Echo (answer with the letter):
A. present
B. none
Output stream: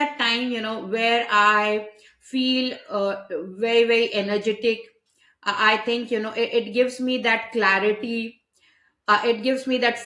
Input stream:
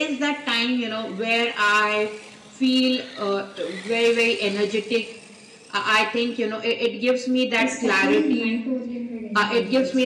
A